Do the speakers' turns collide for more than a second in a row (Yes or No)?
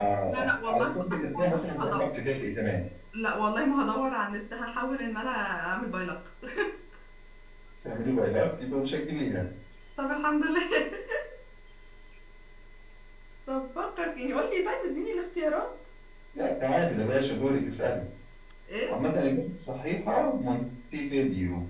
Yes